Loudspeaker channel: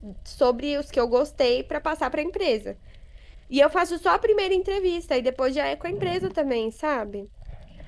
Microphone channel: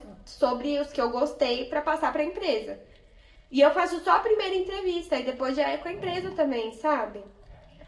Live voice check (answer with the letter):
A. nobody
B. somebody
A